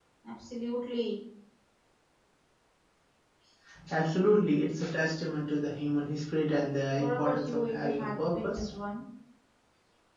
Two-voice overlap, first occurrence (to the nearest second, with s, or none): 7 s